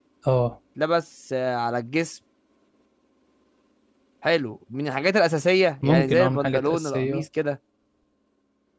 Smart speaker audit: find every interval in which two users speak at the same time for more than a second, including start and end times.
5.8-7.2

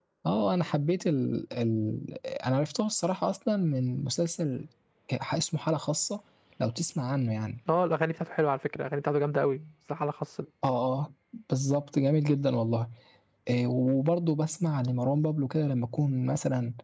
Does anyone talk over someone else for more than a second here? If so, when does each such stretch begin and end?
none

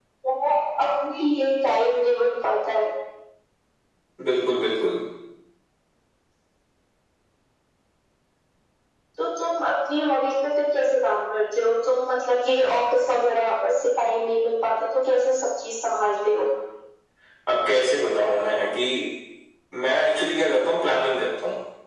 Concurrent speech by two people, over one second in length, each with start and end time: none

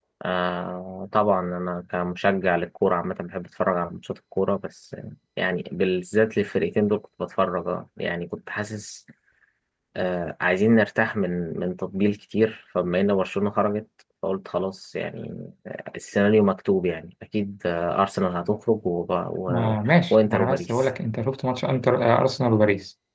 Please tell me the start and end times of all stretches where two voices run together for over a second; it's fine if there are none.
19.5-20.8

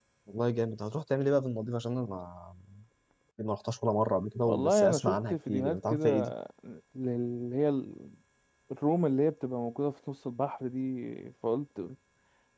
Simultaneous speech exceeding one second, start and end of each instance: 4.5-6.3

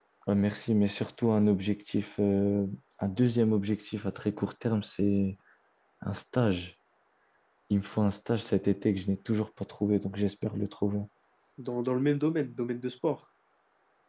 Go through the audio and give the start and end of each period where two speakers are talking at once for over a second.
none

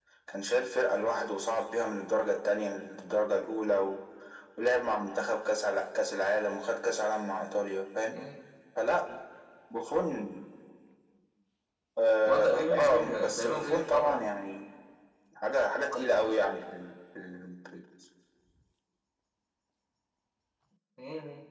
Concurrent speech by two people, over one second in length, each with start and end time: 12.3-14.2

